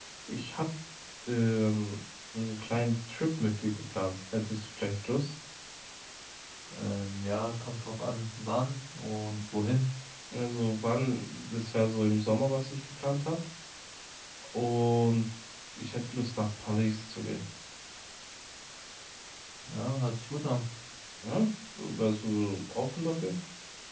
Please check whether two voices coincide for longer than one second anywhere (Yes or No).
No